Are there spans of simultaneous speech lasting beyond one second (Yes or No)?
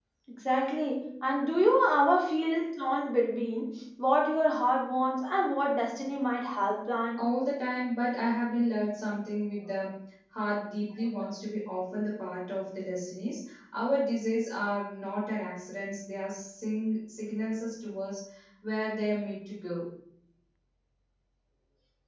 No